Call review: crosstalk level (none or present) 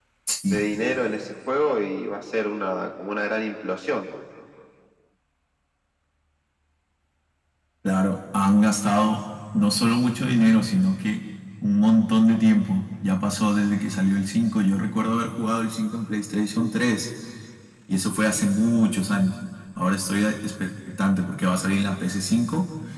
none